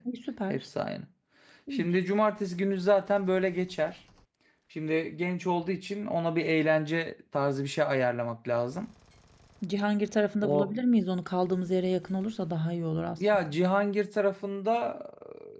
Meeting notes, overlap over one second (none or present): none